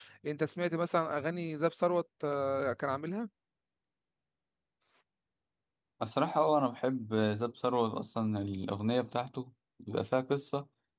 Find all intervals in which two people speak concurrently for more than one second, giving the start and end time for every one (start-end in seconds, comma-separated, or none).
none